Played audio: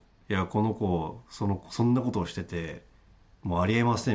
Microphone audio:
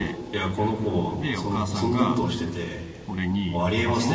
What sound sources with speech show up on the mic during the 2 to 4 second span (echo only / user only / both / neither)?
both